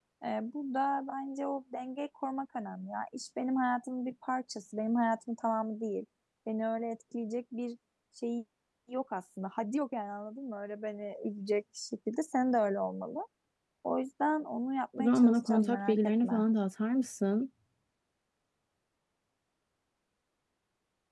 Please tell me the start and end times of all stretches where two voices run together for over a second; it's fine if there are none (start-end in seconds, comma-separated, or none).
15.0-16.3